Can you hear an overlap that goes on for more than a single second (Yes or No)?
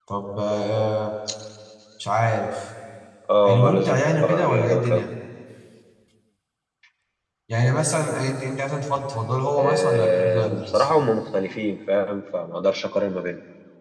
Yes